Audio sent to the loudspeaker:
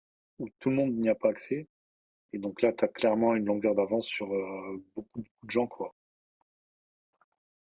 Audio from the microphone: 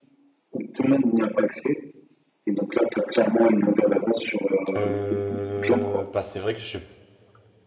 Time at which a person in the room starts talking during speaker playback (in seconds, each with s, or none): 4.8 s